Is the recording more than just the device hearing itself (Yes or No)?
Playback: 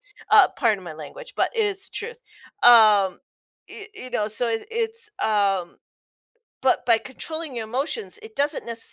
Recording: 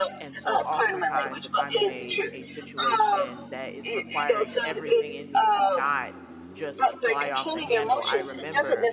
Yes